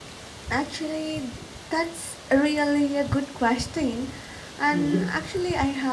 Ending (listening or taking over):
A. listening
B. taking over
A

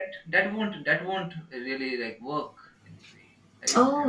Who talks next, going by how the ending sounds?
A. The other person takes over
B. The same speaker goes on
A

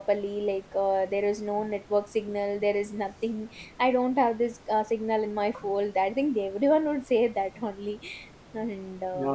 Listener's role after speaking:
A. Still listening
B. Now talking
B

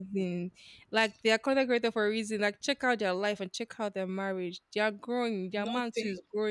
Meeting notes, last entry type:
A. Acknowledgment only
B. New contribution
A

